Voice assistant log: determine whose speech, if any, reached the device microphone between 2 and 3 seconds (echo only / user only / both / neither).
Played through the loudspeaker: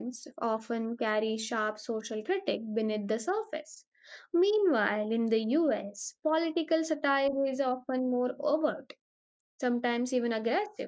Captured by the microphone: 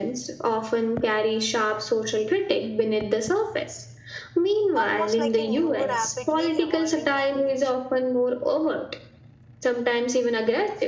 echo only